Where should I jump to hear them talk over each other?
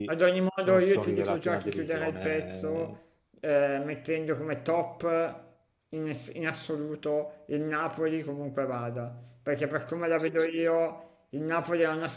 1 s

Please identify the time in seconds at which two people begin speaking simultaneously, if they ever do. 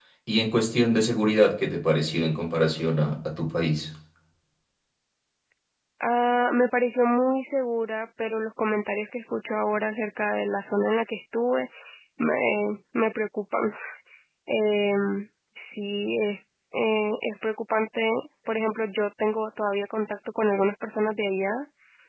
none

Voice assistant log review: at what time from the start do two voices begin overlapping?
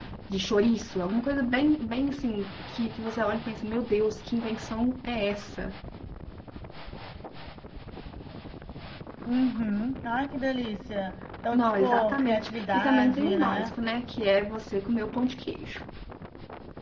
12 s

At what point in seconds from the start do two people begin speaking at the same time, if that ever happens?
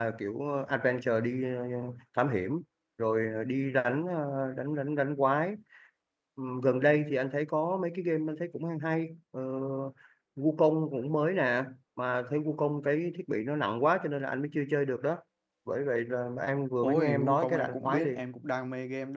17 s

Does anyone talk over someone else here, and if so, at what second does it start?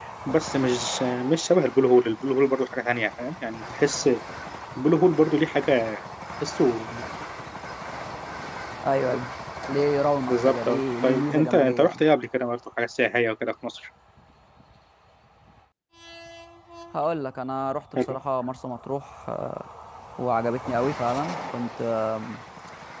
10 s

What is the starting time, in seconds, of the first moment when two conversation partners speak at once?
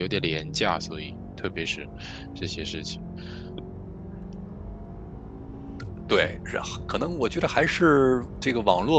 none

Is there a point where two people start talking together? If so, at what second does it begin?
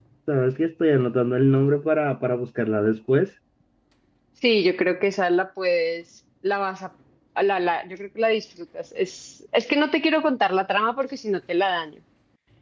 none

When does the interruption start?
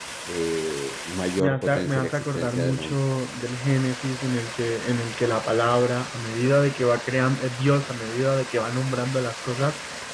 1 s

